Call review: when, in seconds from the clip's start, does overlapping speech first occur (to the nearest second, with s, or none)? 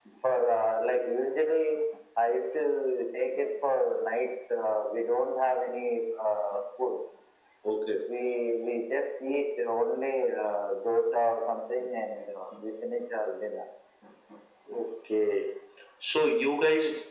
none